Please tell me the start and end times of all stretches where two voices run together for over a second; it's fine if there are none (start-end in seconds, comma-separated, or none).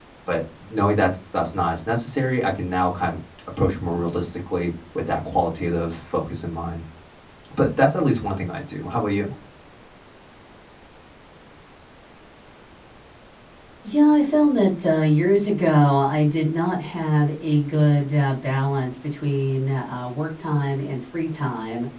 none